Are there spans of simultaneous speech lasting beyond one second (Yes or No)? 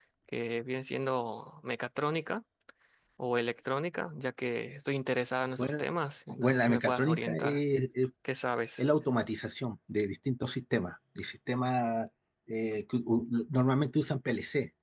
Yes